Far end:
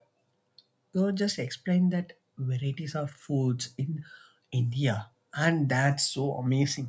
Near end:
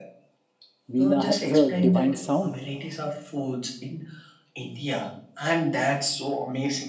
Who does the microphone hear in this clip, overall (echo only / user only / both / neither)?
both